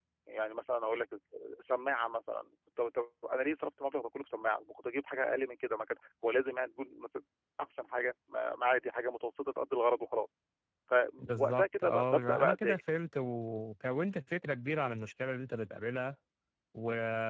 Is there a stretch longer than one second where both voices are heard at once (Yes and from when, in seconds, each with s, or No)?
Yes, from 11.2 s